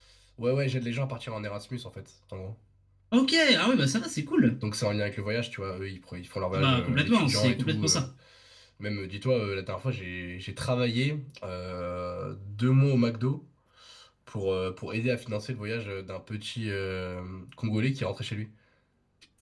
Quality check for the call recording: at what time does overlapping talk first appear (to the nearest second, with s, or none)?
7 s